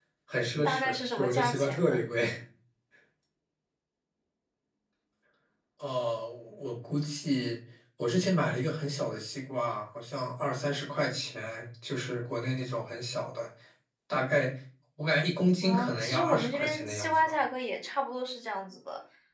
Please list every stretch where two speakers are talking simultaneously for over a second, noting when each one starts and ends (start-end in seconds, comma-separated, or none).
0.6-2.0, 15.6-17.4